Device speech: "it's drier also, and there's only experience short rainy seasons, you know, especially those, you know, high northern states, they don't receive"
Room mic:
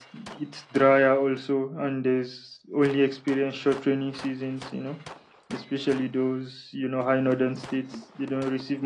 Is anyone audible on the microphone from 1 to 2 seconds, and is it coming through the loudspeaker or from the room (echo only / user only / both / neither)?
echo only